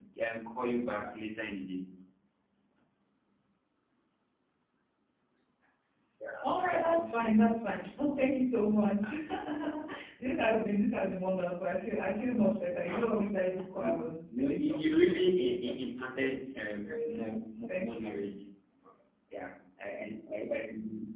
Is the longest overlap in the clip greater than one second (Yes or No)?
Yes